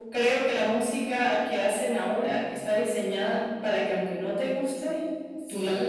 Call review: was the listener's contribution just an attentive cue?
No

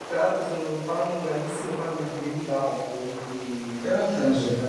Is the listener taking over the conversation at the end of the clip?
No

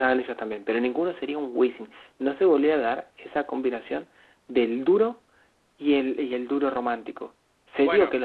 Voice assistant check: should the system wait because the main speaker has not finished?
Yes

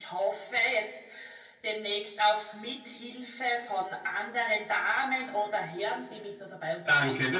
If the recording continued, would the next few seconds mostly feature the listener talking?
Yes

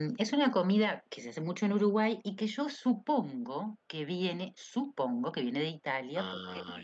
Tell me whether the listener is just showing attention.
Yes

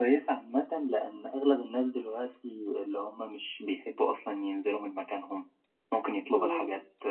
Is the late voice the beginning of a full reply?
No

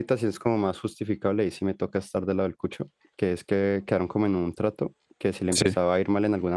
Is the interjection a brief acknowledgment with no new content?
Yes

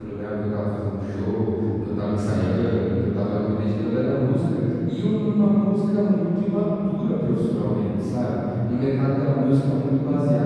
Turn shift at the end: No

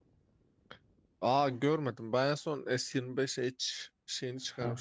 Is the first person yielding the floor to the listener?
Yes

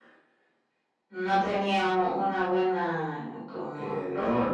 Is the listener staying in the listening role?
No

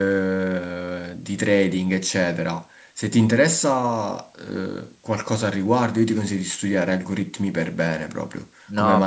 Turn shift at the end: Yes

